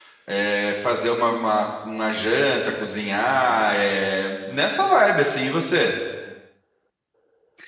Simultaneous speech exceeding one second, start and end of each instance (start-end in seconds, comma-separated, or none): none